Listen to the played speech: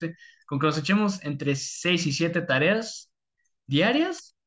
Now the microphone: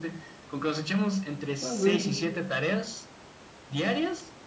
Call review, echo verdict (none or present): present